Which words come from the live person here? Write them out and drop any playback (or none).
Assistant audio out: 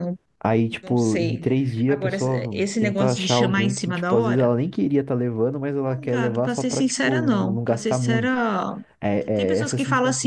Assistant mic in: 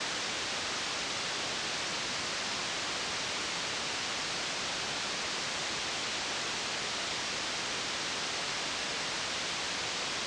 none